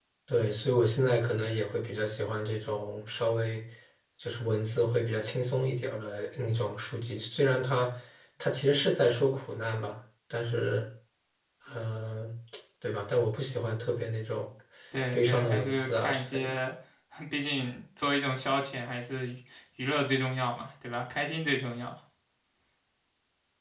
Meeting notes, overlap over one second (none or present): present